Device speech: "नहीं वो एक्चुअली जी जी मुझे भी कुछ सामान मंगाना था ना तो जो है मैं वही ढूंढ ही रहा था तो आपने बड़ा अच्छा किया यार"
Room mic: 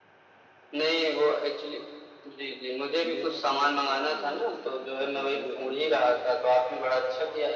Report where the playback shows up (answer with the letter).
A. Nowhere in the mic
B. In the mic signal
B